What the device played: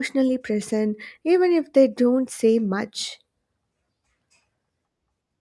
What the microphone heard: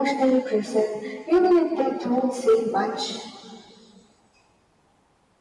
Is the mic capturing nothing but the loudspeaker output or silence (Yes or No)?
Yes